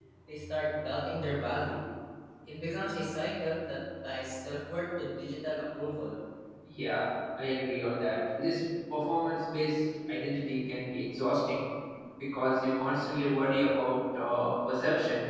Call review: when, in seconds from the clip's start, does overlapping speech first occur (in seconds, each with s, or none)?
none